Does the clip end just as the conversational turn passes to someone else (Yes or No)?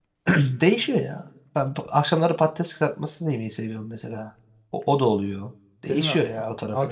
Yes